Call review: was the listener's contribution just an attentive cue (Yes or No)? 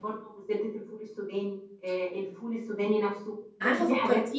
No